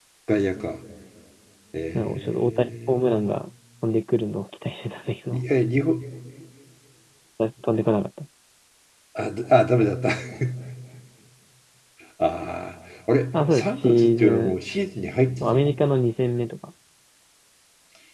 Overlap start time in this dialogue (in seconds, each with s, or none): 1.9 s